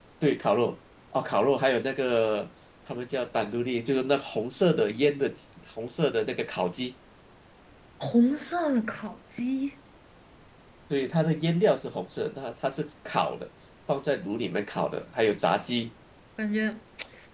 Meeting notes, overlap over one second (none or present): none